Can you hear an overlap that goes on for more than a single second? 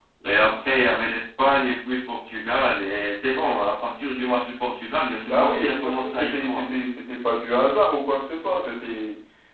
Yes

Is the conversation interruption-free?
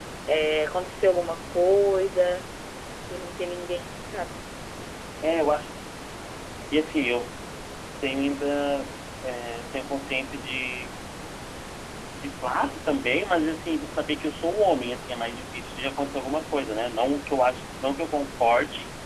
Yes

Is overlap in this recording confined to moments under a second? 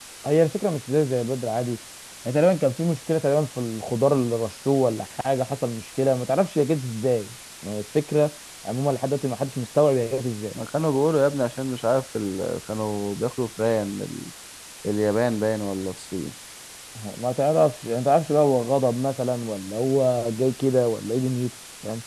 Yes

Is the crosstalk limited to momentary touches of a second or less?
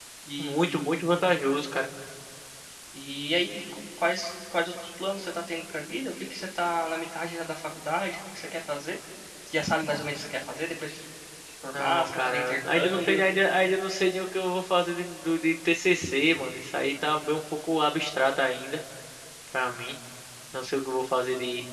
No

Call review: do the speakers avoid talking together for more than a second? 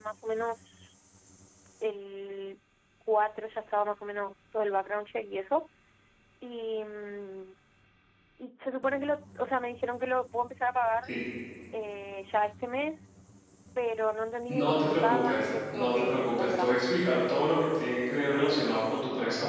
No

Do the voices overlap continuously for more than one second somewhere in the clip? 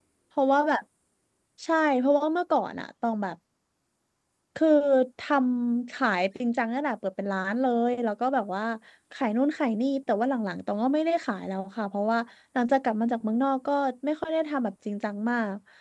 No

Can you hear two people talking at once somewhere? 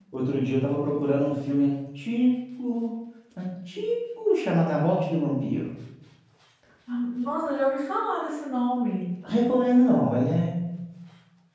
No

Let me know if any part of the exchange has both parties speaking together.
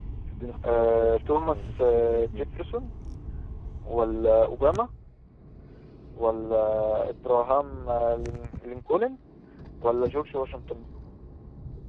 Yes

